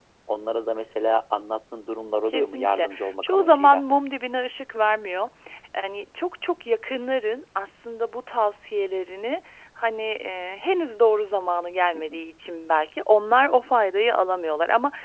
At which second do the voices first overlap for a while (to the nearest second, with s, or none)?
2 s